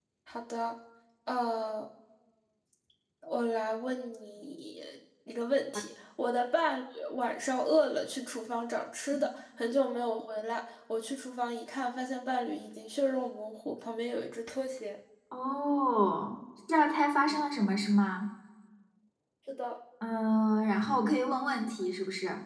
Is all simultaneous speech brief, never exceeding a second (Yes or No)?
Yes